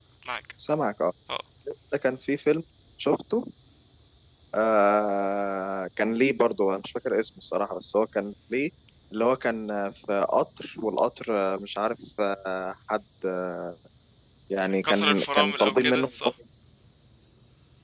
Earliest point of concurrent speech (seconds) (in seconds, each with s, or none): 14.8 s